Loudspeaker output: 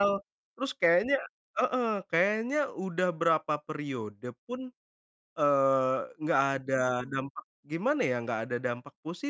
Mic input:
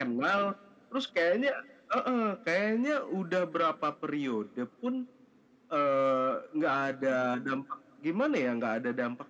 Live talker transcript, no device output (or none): none